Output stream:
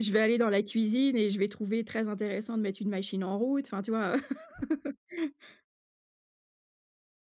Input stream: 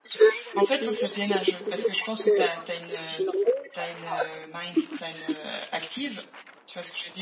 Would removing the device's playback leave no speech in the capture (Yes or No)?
No